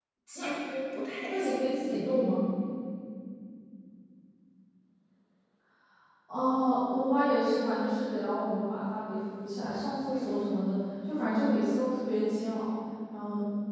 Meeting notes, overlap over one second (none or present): none